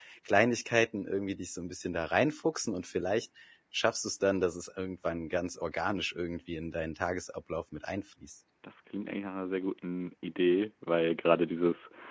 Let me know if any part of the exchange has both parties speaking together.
No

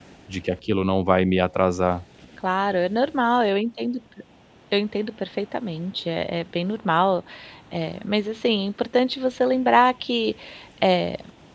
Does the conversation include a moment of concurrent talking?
No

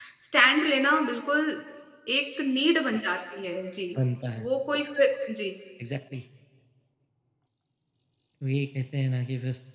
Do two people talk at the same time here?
No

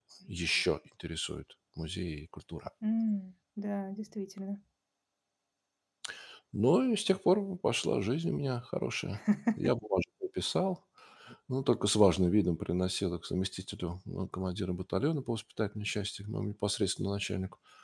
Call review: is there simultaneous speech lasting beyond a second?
No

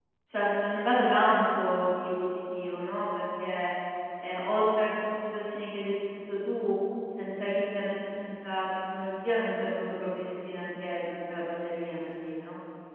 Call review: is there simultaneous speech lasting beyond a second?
No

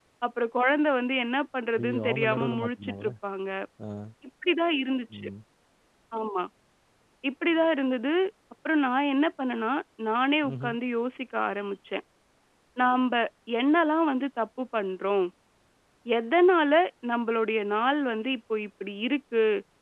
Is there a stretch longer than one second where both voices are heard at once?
Yes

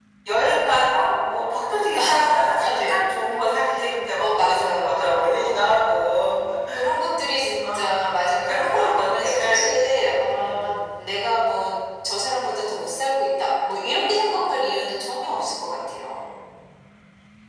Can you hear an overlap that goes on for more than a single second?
Yes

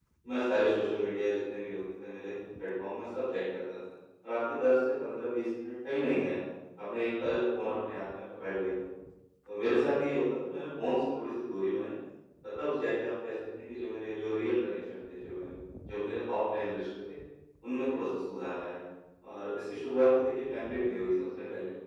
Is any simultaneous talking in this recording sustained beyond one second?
No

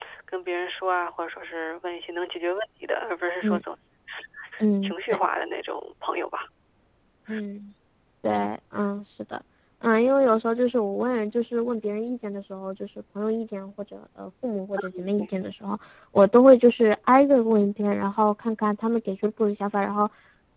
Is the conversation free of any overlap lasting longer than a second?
Yes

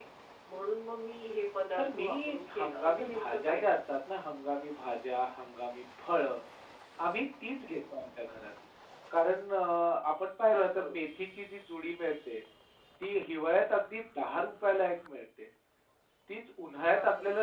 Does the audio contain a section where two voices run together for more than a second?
Yes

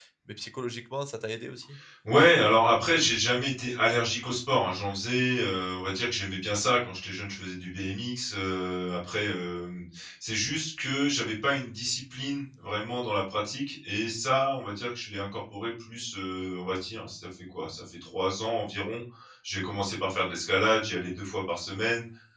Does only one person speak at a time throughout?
Yes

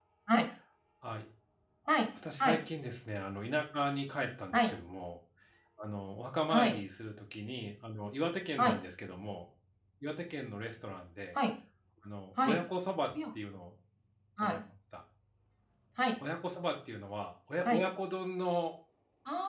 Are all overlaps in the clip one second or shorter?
Yes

